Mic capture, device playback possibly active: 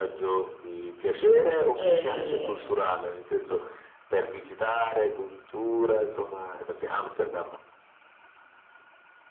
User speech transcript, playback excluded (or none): Eh,